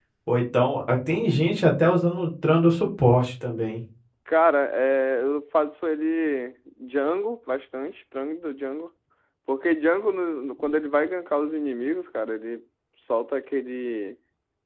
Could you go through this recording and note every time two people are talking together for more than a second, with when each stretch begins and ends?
none

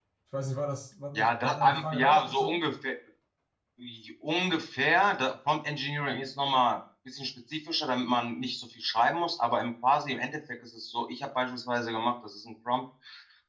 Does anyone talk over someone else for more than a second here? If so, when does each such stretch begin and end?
1.1-2.6

